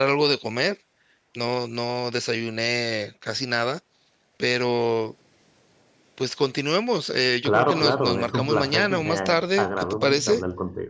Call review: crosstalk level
present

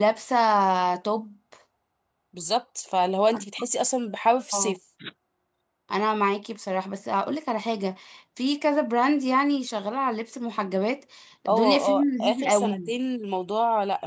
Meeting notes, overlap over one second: present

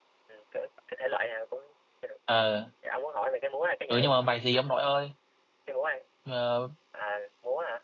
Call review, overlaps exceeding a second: none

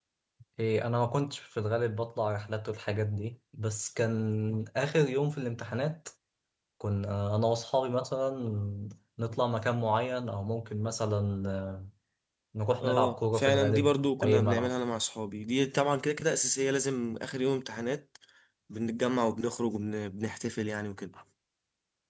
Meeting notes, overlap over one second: present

